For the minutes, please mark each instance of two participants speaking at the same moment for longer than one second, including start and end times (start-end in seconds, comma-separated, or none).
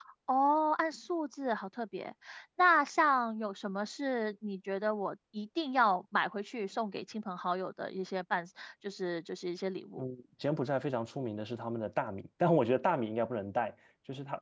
none